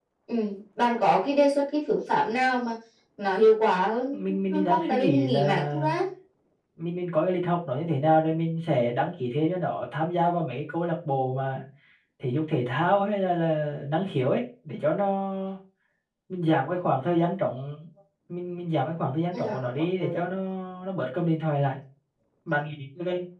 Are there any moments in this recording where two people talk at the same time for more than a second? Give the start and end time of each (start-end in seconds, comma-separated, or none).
4.1-6.0